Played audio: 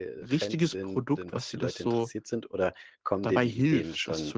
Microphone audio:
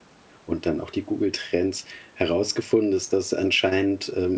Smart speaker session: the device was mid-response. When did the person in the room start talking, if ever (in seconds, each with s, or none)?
0.4 s